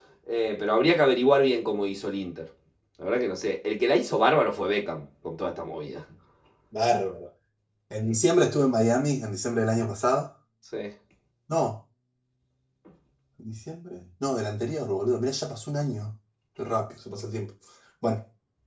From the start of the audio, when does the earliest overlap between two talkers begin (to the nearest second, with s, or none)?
none